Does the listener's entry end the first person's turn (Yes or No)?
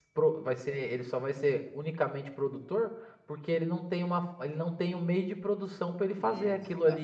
Yes